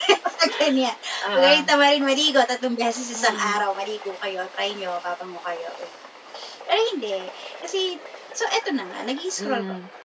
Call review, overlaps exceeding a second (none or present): none